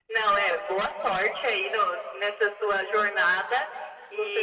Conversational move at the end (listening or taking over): listening